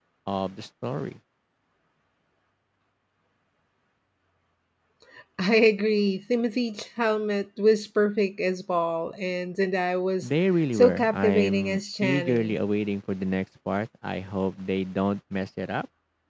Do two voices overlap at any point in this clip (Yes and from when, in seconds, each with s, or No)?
Yes, from 10.7 s